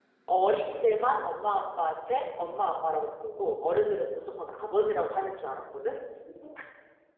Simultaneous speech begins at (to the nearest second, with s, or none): none